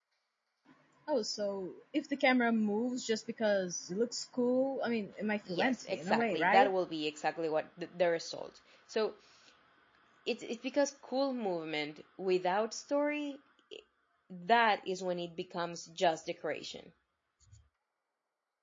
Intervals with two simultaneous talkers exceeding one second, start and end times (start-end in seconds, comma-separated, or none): 5.5-6.7